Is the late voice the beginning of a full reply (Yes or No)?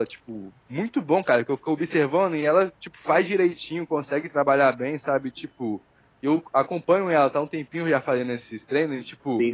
No